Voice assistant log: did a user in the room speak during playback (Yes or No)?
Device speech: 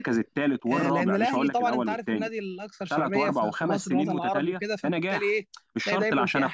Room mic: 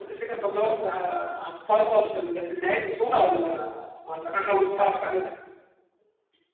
Yes